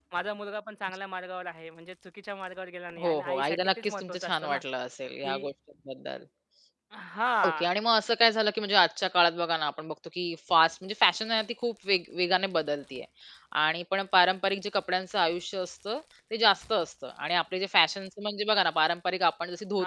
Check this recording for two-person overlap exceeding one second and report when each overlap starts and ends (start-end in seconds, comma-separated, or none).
3.0-4.6